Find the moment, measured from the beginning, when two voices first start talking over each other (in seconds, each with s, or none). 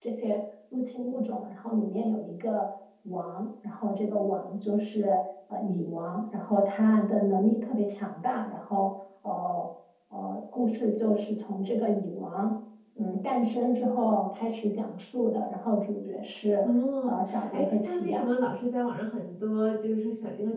17.1 s